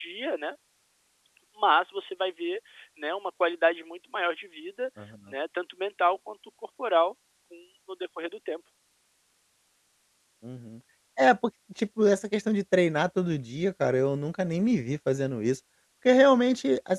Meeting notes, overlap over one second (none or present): none